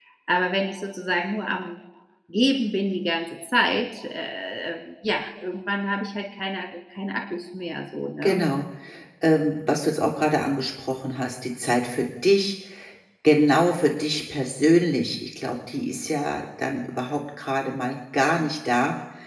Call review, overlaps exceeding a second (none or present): none